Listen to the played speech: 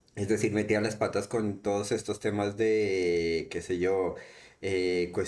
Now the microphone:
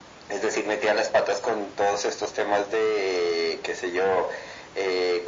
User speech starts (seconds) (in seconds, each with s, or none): none